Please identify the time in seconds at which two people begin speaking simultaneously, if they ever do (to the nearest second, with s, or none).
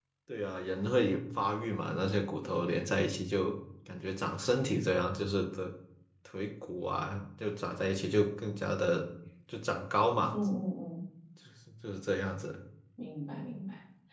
none